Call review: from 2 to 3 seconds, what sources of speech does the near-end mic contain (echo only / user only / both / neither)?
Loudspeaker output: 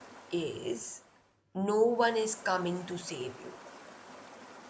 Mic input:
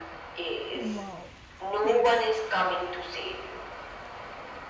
both